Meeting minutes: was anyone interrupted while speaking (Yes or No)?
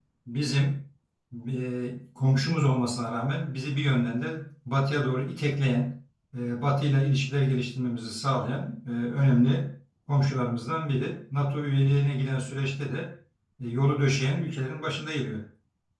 No